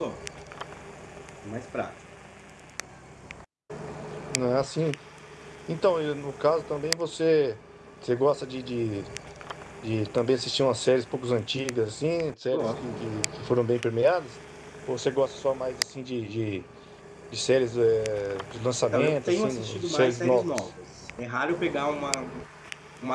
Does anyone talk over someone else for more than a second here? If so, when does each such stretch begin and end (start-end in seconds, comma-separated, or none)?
18.8-20.6